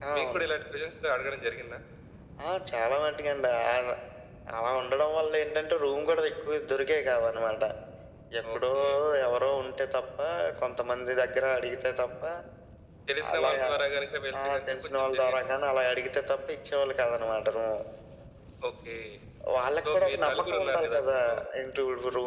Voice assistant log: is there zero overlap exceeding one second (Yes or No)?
No